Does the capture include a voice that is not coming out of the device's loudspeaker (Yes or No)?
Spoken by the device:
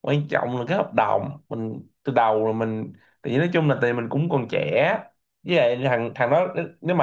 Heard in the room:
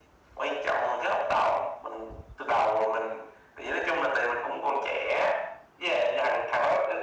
No